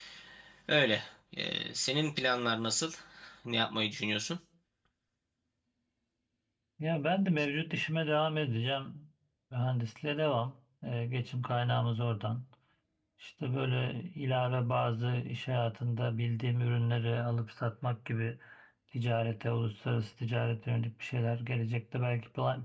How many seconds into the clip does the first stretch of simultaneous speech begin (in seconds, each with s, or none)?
none